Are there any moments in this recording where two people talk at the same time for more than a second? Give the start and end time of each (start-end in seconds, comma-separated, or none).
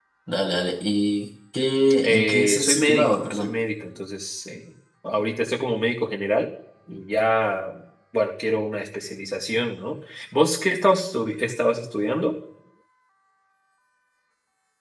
2.0-3.6